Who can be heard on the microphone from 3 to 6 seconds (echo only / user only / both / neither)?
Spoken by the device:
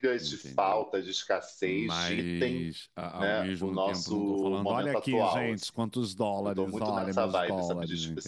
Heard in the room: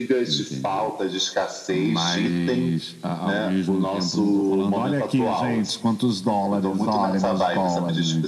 echo only